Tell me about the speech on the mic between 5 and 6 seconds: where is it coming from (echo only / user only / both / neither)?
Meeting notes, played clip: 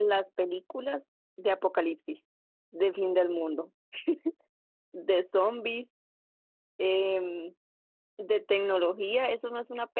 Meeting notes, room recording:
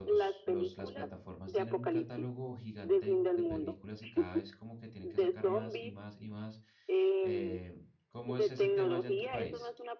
both